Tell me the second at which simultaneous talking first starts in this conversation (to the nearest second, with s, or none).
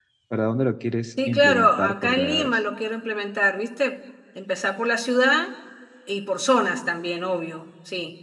1 s